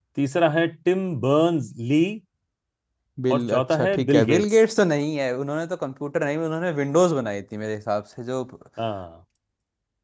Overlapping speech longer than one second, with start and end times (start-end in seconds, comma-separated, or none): 3.3-4.6